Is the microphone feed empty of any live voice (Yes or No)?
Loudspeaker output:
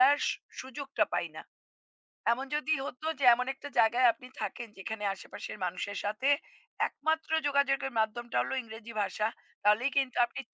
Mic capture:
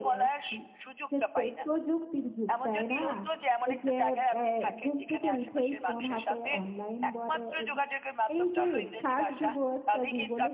No